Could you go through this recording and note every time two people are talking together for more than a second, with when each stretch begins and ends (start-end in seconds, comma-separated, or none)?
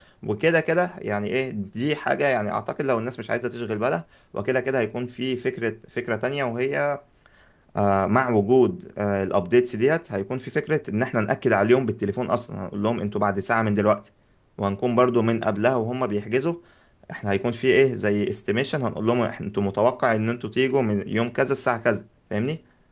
none